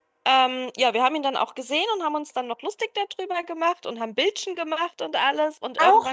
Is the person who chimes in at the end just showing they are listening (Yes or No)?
No